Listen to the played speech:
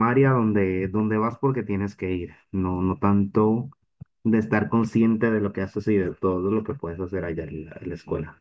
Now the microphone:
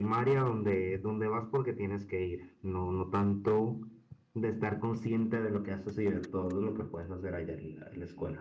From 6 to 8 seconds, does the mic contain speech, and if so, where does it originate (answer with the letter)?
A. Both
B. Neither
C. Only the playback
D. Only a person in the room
C